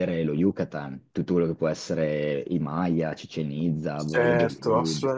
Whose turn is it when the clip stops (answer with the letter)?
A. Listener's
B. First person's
A